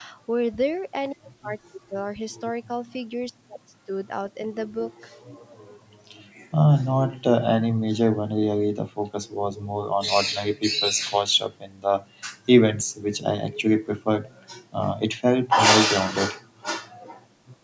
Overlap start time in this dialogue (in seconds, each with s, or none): none